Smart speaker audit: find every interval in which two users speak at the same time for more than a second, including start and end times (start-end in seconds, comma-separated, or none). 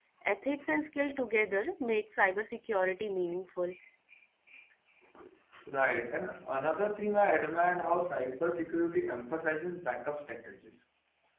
none